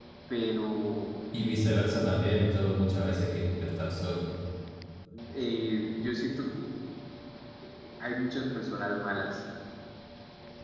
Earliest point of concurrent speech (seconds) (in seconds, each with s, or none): none